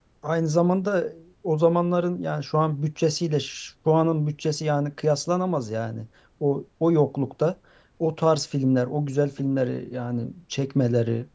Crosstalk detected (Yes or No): No